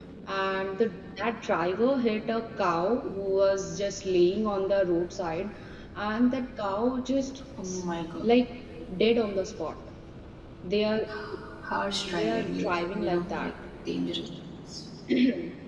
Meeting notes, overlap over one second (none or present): present